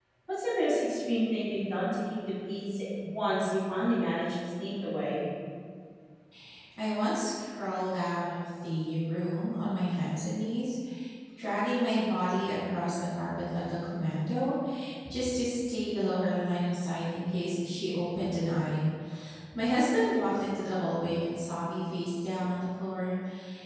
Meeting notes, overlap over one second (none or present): none